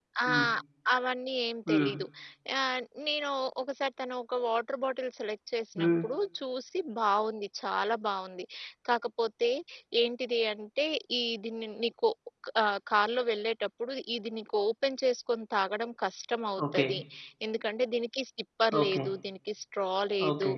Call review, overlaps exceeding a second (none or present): none